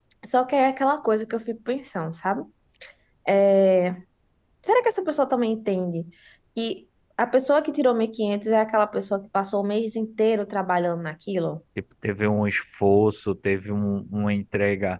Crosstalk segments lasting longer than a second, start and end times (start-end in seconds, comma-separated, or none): none